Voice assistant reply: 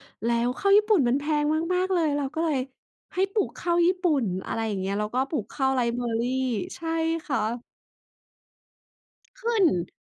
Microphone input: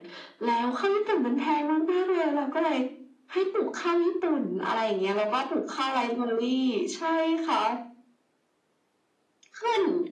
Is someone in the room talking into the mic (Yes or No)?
No